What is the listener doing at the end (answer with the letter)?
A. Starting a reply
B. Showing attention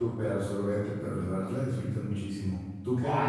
A